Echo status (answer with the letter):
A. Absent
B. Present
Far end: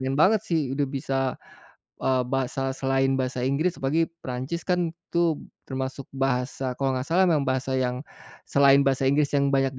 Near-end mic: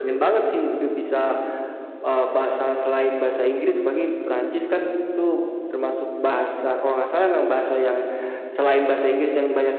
B